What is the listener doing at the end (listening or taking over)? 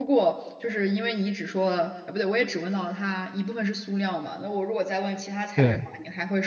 listening